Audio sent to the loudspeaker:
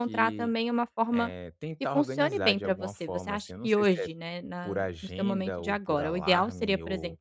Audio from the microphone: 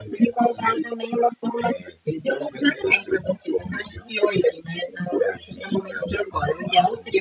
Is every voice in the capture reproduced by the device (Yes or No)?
Yes